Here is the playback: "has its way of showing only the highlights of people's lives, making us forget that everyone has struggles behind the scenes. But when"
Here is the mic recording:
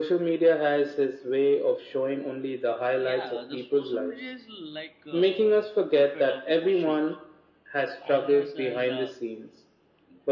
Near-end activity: present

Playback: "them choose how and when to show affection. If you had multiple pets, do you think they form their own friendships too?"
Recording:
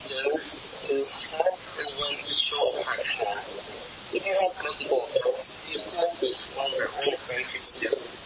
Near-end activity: none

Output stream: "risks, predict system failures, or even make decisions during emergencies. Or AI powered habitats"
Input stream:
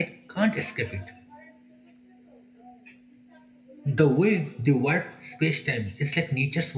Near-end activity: present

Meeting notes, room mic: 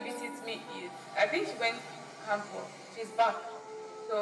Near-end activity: none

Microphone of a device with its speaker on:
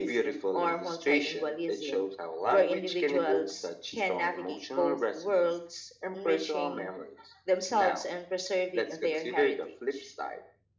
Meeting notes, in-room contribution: none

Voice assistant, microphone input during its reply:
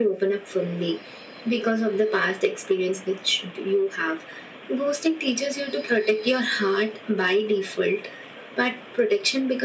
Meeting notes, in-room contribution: none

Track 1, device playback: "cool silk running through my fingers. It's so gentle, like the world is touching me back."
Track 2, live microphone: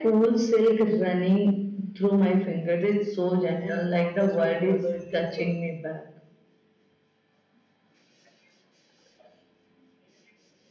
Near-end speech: present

